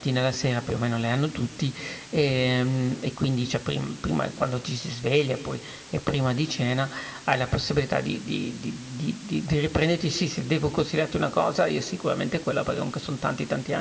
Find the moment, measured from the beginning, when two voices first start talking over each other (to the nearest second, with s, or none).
none